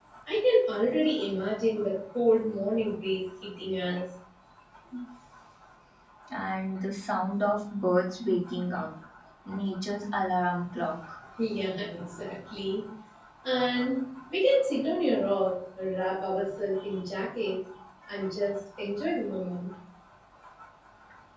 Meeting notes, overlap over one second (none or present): none